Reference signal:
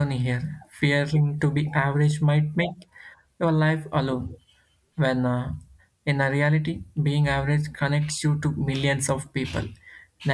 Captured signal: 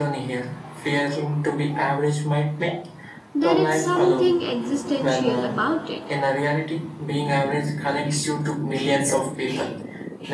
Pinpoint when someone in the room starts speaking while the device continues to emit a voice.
3.3 s

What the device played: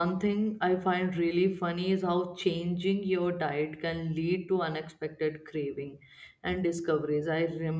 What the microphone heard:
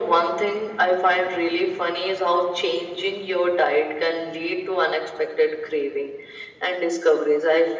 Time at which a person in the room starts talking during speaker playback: none

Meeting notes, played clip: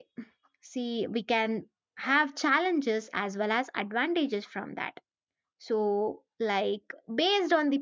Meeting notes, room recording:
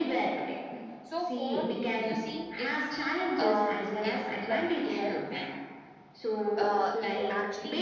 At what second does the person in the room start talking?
1.0 s

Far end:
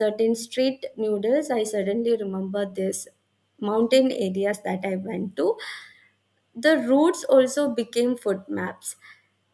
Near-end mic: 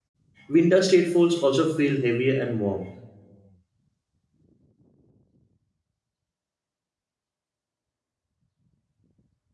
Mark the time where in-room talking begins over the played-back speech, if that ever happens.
0.5 s

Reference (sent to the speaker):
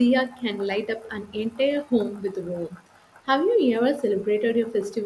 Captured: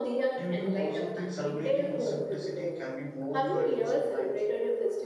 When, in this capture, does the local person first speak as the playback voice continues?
0.4 s

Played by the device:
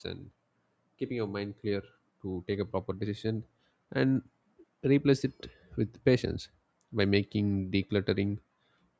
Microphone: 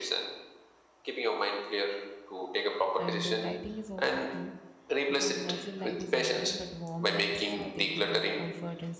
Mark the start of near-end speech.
3.0 s

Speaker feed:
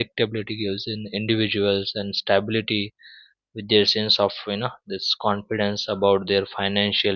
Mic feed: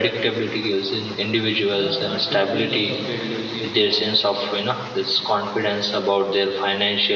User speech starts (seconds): 1.7 s

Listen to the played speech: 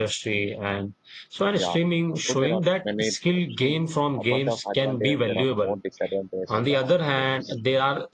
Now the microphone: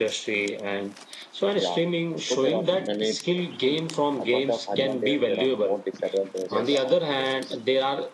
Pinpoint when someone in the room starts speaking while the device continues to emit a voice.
6.5 s

